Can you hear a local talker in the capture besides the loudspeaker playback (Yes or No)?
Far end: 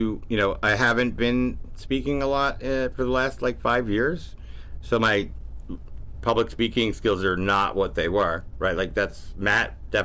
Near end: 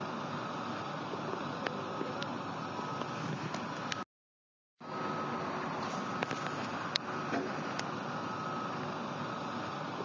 No